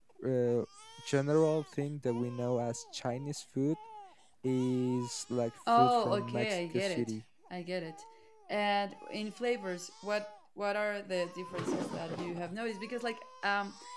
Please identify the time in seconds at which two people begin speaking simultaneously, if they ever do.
6 s

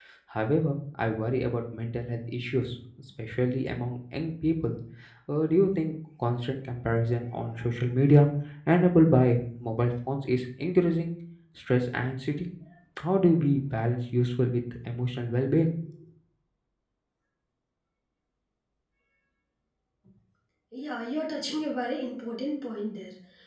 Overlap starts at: none

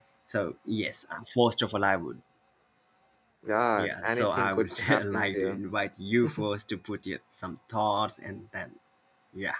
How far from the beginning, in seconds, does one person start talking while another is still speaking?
4 s

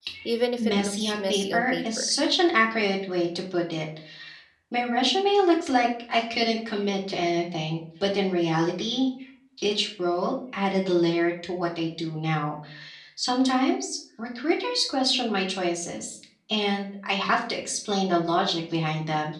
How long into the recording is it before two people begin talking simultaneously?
1 s

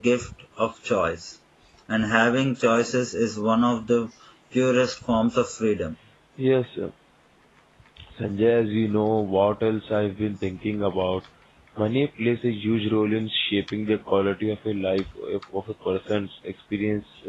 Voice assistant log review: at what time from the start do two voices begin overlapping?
none

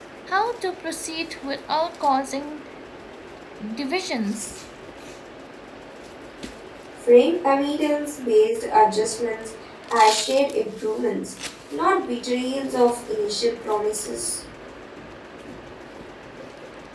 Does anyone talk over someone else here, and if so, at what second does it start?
none

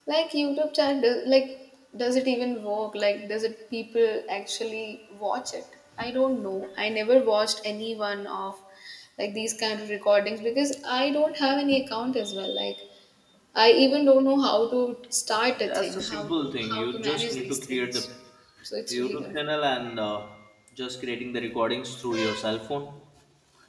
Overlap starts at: 16 s

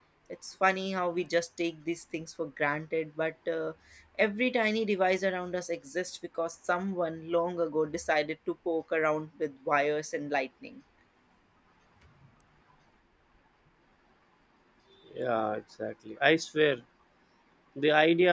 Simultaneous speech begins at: none

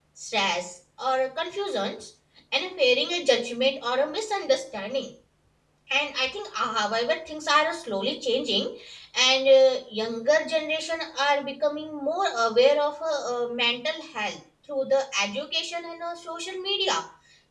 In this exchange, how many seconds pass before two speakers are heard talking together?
none

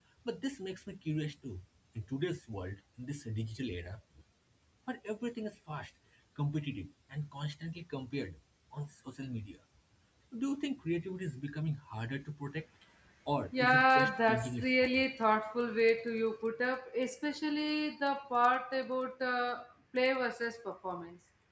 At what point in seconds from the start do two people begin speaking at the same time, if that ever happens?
14 s

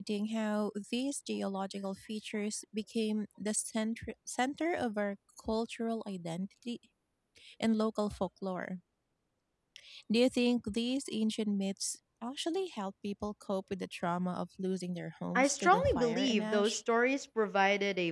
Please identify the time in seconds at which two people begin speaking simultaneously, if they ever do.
15 s

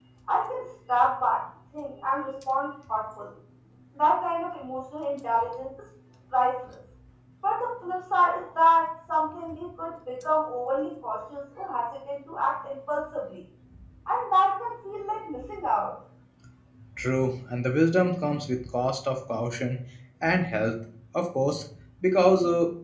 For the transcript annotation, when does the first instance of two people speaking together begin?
none

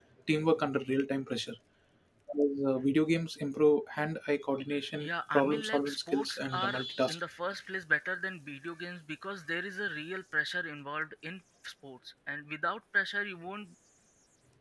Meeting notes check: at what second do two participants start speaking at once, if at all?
5 s

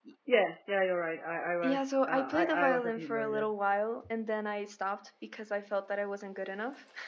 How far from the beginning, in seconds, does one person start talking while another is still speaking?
2 s

